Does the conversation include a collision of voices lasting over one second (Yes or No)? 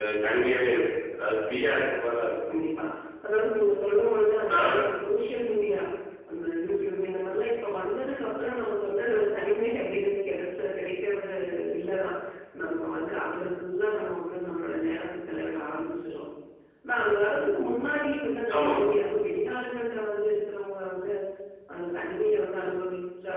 No